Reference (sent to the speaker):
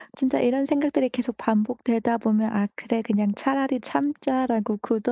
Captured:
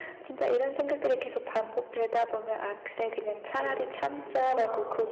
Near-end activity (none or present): present